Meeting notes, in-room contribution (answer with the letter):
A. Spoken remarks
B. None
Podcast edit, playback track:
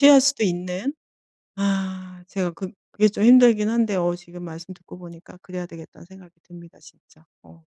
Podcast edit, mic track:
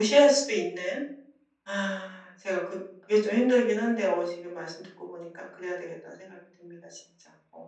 B